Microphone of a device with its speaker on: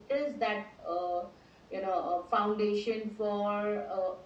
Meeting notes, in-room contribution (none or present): none